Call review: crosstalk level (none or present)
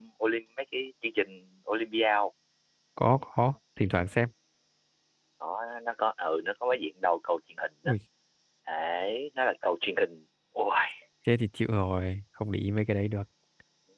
none